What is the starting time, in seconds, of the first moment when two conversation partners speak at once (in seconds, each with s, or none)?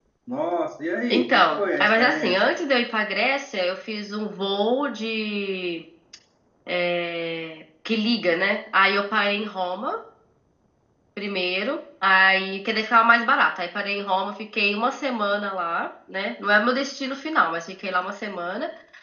1.1 s